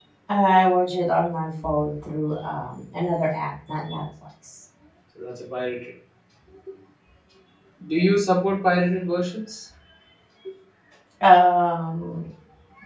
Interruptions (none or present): none